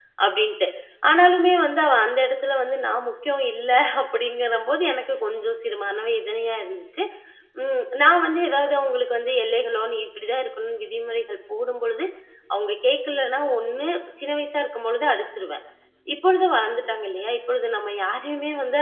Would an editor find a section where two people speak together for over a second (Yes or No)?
No